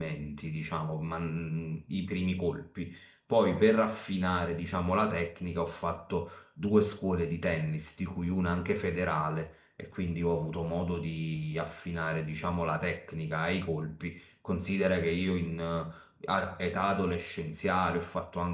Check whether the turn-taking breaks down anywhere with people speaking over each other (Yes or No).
No